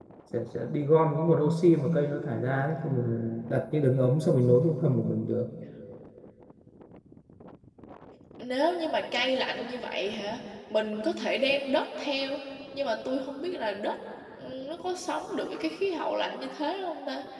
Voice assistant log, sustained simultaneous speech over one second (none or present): none